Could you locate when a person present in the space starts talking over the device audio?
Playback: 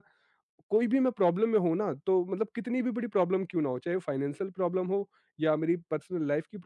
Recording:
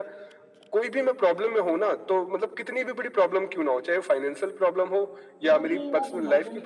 5.4 s

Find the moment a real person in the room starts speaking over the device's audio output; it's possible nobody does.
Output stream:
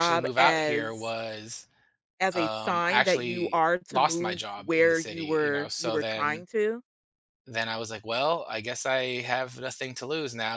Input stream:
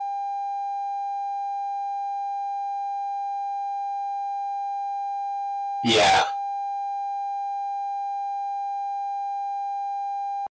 5.8 s

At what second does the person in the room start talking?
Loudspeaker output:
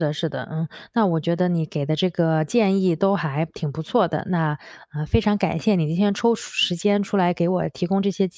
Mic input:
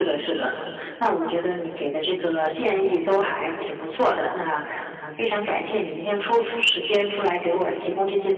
none

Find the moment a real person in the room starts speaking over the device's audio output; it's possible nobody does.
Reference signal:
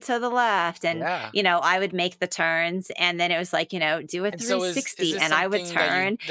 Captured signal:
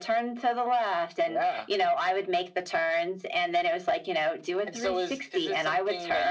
none

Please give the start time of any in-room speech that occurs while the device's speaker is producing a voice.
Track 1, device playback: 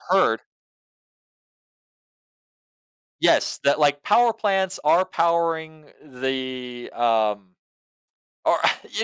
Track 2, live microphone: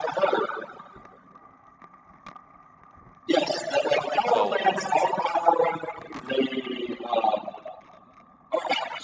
4.2 s

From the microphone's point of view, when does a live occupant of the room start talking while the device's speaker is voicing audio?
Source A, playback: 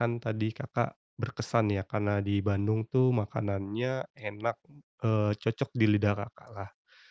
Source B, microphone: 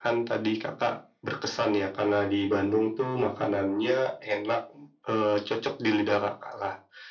none

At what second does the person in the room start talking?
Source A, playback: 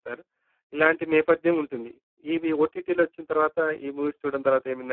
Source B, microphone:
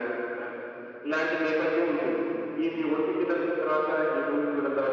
none

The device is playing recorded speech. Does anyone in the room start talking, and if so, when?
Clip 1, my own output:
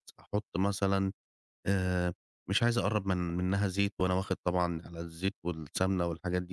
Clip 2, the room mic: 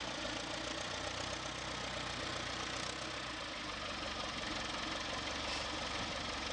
none

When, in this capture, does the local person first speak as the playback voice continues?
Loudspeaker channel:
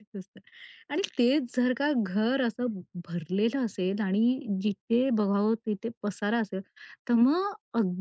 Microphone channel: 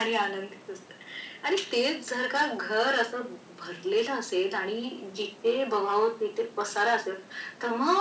none

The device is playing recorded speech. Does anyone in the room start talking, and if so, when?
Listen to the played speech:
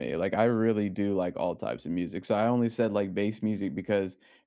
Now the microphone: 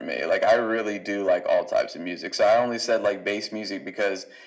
none

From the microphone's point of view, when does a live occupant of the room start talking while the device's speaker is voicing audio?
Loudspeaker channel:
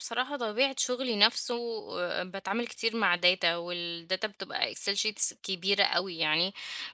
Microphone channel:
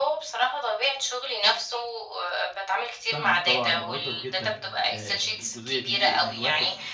3.1 s

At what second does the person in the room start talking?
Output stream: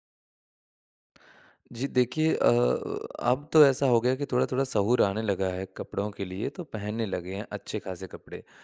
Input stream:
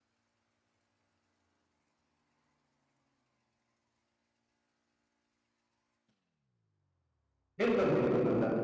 7.6 s

